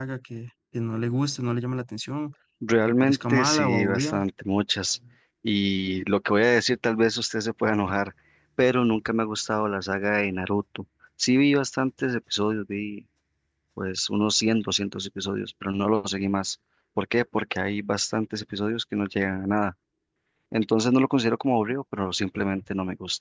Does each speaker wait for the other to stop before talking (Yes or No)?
No